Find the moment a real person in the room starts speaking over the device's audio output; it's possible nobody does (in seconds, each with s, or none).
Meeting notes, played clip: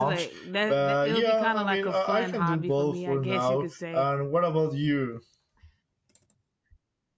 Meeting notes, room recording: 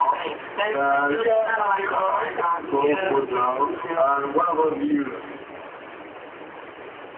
2.7 s